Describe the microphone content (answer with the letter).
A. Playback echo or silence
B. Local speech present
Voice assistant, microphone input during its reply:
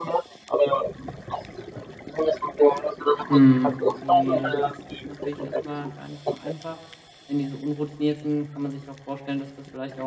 B